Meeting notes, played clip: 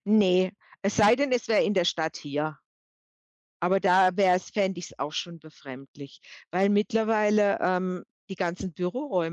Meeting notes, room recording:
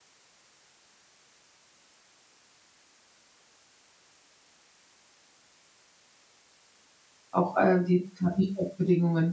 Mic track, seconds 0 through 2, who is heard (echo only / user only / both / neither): neither